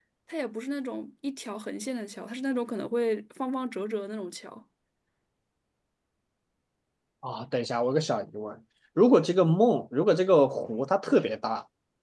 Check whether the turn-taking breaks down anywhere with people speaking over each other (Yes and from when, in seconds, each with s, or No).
No